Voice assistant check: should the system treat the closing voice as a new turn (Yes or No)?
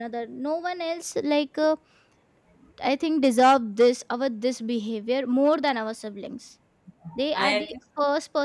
No